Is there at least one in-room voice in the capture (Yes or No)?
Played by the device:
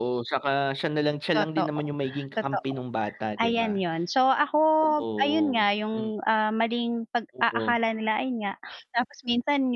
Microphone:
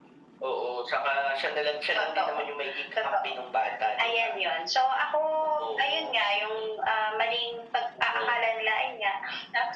No